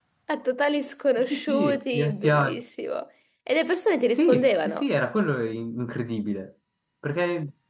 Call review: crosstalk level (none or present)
present